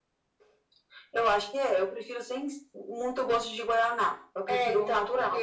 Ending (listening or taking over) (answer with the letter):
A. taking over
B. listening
A